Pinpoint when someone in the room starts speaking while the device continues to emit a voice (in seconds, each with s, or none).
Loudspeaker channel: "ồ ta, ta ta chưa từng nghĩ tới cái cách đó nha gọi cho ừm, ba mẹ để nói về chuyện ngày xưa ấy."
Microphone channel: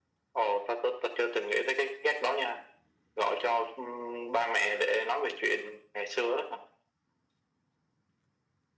none